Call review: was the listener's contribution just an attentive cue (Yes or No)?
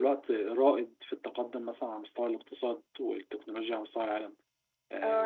No